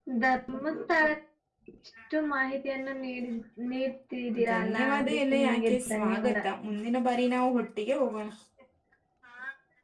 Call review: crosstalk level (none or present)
present